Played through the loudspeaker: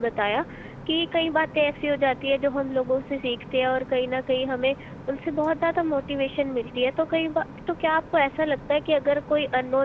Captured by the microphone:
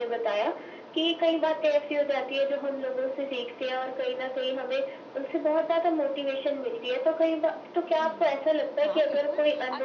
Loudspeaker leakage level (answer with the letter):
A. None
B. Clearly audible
B